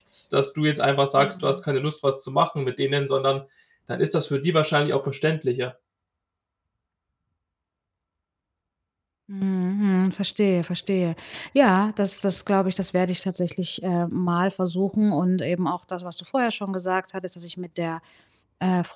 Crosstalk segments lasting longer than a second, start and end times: none

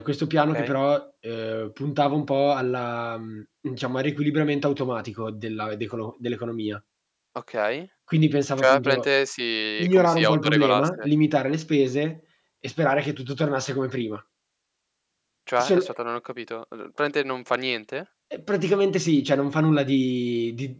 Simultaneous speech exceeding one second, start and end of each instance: 9.8-11.1

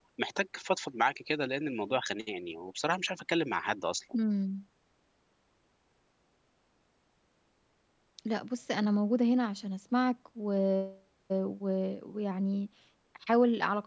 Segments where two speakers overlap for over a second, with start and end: none

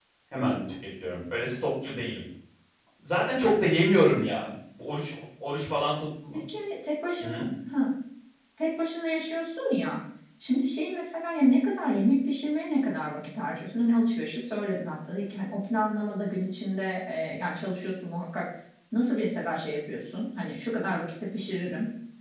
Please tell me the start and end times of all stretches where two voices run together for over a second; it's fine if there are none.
none

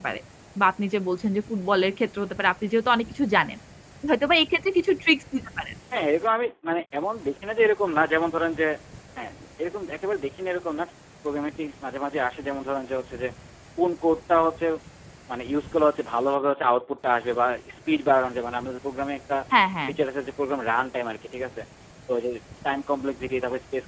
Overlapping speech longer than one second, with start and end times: none

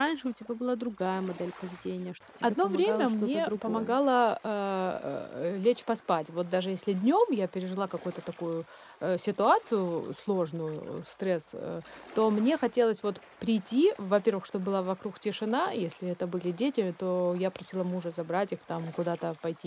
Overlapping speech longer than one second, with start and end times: 2.4-4.0

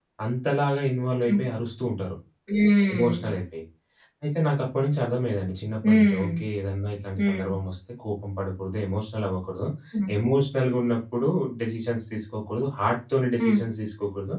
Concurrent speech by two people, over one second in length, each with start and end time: none

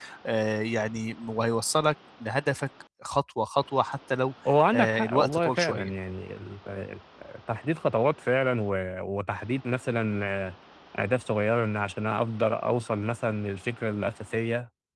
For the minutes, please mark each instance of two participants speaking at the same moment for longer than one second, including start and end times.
4.7-5.9

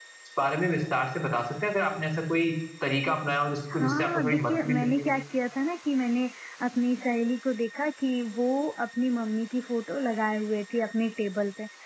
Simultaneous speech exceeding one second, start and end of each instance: 3.7-5.1

